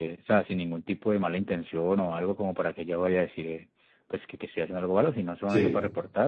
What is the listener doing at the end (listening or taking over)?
listening